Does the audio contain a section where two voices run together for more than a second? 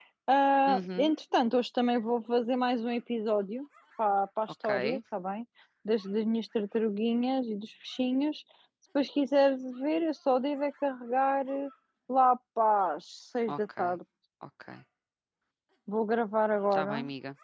No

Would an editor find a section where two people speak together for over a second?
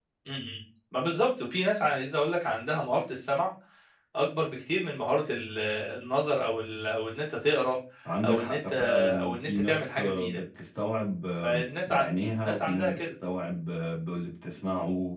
Yes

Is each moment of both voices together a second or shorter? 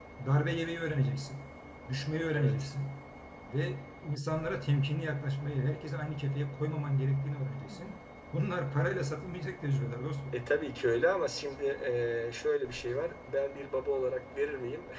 Yes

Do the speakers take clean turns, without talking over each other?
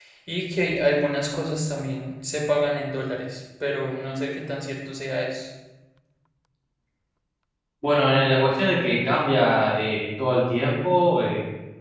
Yes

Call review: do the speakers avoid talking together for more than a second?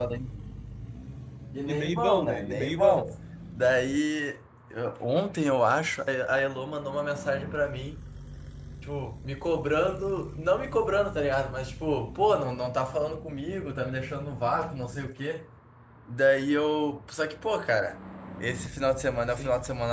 No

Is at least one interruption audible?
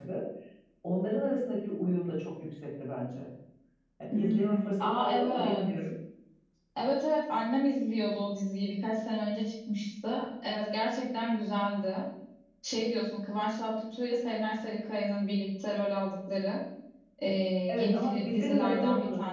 Yes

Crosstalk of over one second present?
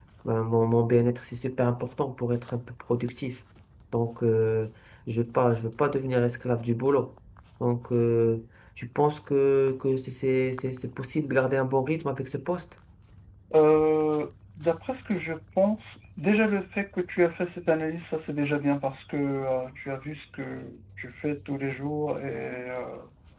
No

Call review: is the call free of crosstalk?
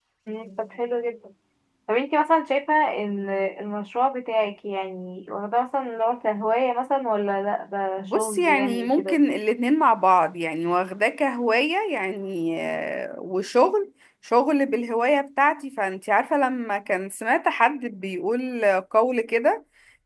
No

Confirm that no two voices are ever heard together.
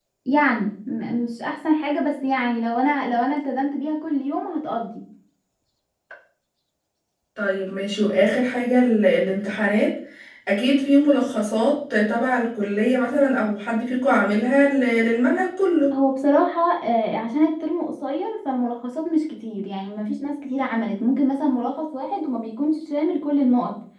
Yes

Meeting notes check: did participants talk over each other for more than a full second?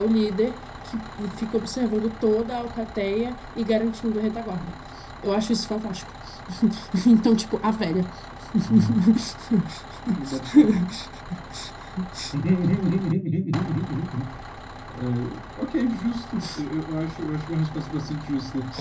No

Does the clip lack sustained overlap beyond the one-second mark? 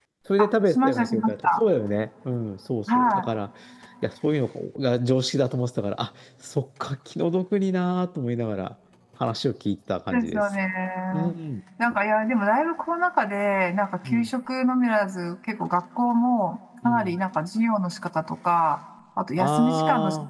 No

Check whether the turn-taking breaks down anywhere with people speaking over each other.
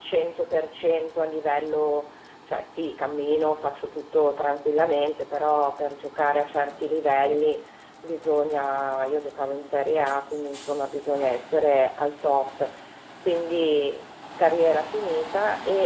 No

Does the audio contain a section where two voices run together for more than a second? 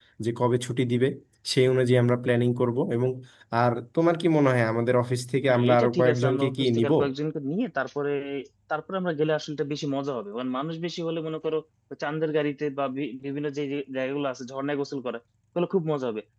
Yes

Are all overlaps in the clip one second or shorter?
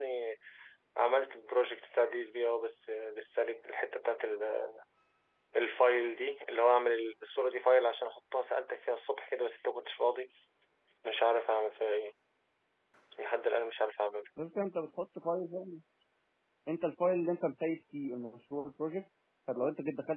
Yes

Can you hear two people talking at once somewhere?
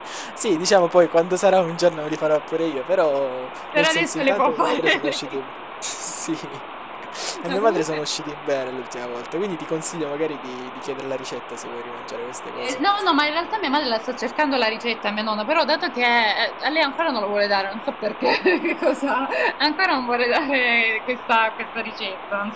Yes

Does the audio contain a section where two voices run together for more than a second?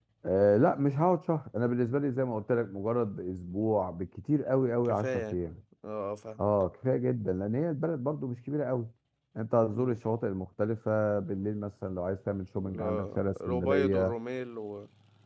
Yes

